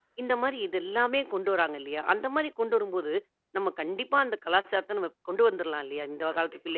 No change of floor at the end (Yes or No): No